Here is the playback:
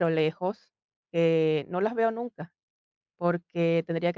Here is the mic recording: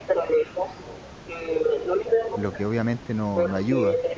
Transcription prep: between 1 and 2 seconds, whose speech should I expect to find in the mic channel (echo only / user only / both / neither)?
echo only